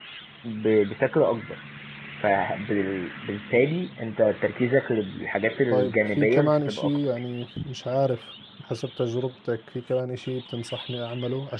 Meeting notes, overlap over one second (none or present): present